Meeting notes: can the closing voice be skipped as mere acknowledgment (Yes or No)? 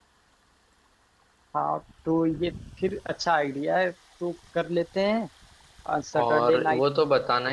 No